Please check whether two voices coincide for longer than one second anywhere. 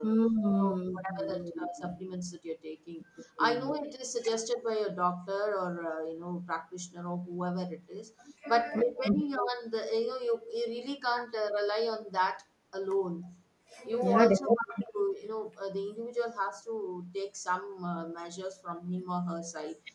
Yes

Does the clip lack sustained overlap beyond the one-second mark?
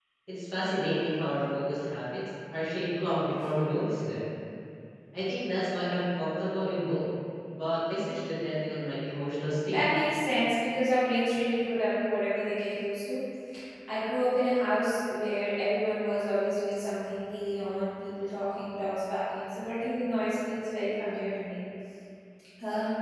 Yes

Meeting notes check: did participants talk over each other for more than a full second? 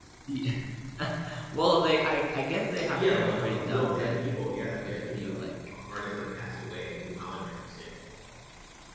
Yes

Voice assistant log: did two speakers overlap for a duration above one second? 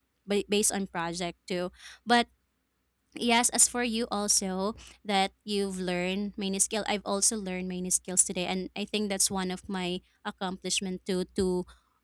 No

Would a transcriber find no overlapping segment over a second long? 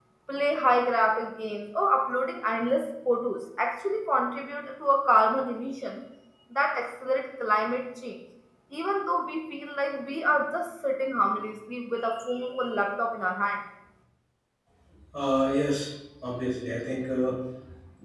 Yes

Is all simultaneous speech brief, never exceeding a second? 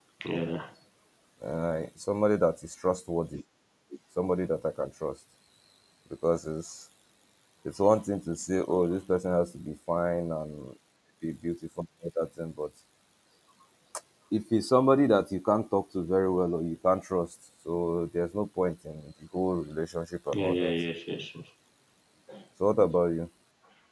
Yes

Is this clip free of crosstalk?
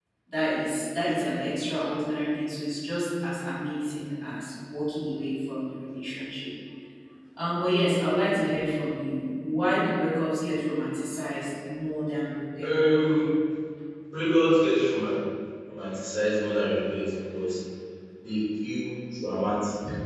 Yes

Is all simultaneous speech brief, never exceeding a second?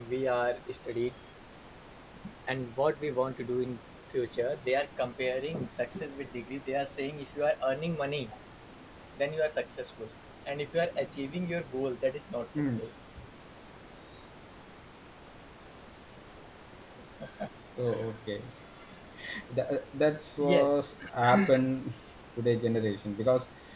Yes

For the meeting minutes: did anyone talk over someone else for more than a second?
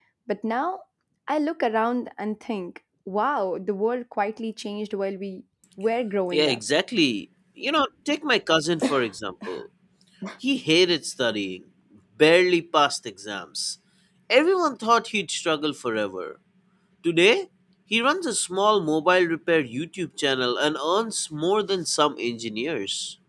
No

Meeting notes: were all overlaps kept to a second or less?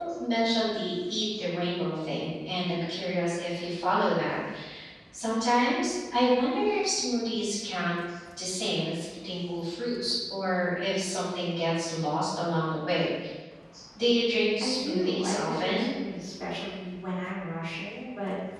No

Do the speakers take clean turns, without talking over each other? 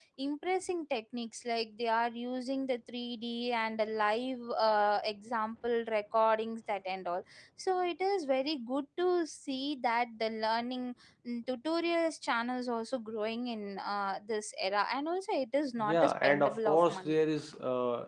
No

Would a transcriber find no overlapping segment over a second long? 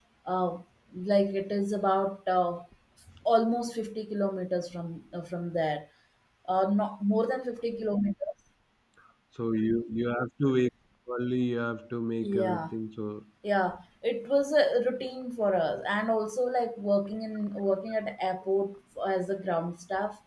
Yes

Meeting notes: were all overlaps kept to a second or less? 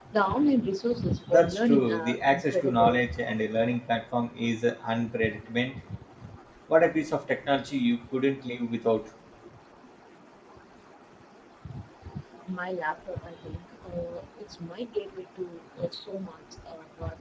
No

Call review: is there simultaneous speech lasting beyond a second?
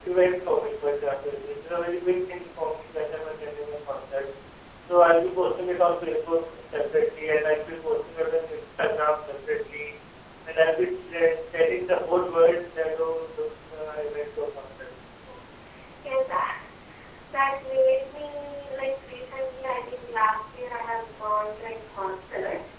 No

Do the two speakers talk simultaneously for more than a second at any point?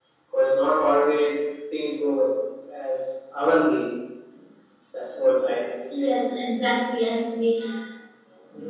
No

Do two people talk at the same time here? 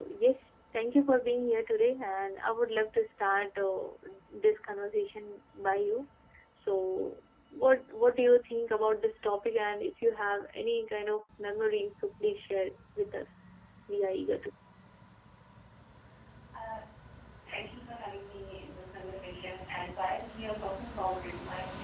No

